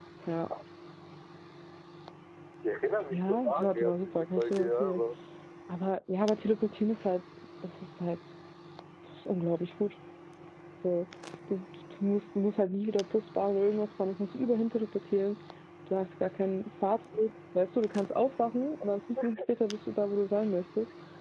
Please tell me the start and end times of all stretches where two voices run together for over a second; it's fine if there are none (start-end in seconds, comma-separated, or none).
3.1-5.0